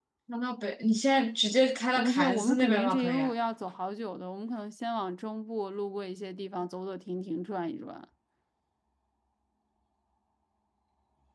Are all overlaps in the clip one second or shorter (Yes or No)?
No